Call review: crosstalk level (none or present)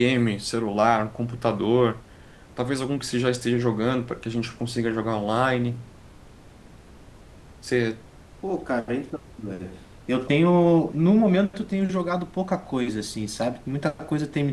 none